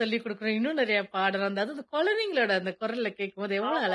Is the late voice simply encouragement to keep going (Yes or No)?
No